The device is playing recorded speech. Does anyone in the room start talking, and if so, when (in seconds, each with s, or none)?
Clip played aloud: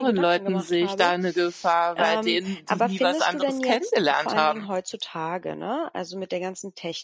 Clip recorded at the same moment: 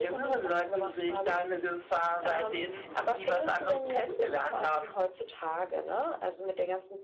none